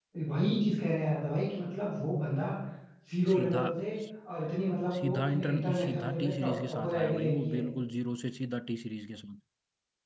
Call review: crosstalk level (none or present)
present